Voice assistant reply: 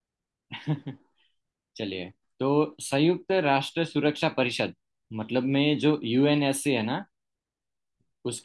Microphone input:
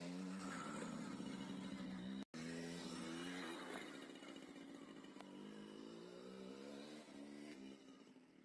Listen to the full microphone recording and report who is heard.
neither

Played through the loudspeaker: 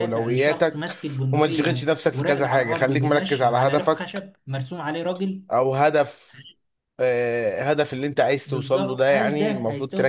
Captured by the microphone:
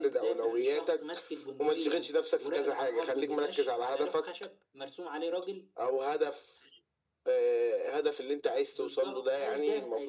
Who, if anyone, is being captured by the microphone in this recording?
echo only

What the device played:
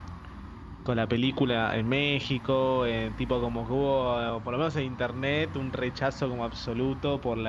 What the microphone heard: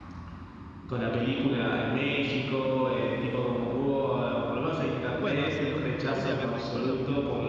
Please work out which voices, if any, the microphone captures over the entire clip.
both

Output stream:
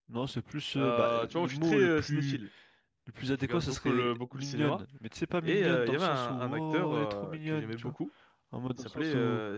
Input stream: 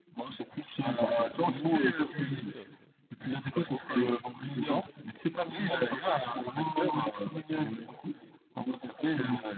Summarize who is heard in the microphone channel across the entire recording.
both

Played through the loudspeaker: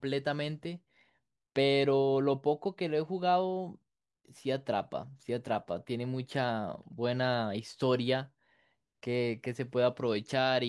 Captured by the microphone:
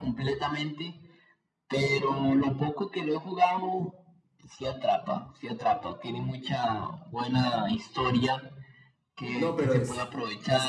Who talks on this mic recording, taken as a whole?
both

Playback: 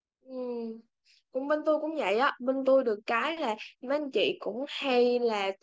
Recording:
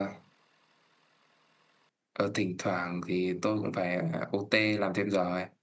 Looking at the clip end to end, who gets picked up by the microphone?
user only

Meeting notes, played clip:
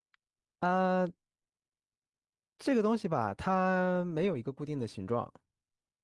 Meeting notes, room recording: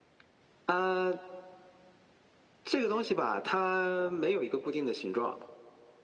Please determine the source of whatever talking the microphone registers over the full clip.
echo only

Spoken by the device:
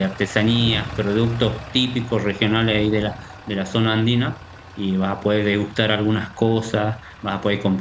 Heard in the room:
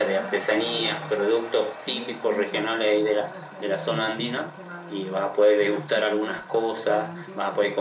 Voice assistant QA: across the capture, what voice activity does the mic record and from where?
both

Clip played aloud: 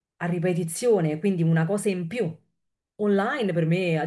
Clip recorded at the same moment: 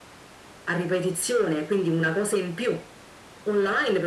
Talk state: echo only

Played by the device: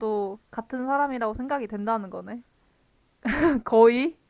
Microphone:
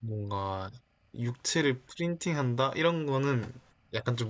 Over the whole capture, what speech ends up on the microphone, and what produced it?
user only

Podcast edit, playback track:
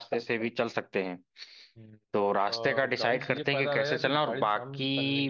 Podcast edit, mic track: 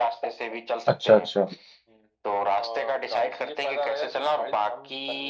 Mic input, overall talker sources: both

